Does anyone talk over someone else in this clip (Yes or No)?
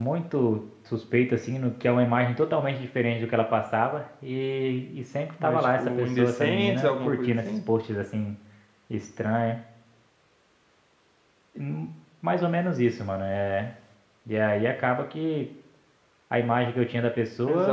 Yes